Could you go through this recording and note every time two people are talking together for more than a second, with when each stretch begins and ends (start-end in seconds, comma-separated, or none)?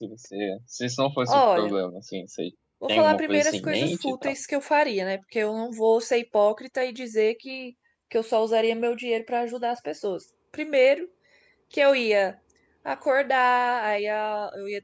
2.9-4.3